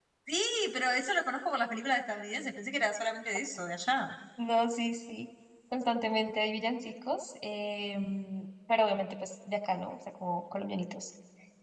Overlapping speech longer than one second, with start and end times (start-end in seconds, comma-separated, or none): none